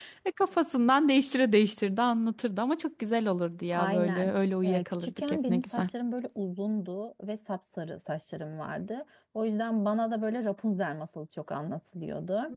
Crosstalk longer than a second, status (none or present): present